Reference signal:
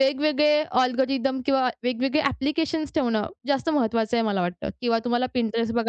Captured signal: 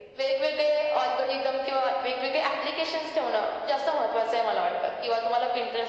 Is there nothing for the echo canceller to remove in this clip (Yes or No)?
No